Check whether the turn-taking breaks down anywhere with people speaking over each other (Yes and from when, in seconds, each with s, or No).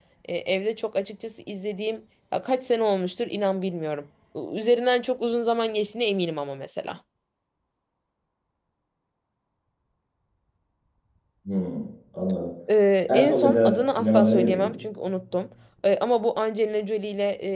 Yes, from 13.1 s